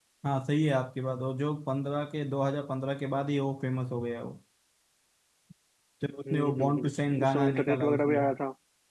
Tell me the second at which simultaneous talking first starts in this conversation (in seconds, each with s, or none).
6.3 s